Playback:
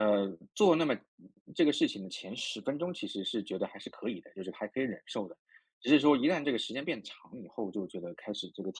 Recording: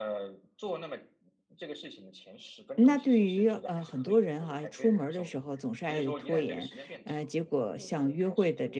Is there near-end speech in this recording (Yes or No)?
Yes